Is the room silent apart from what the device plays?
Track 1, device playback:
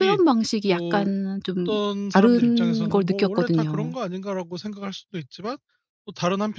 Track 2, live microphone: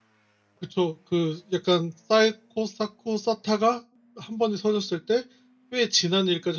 No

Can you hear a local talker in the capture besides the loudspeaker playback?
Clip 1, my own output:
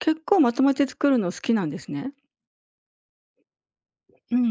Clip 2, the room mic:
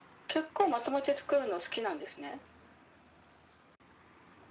No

